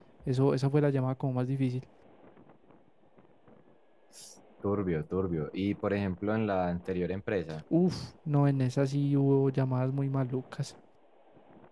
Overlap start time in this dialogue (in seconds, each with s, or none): none